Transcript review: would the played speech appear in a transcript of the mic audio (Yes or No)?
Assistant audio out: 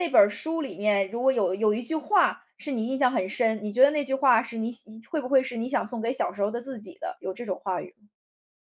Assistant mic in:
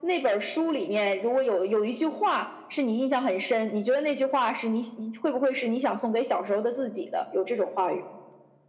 Yes